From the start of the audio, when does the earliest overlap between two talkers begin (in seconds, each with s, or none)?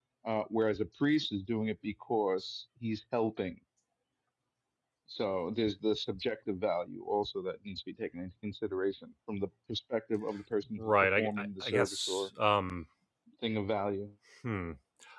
10.8 s